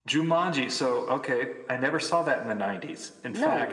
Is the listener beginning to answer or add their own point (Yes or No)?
No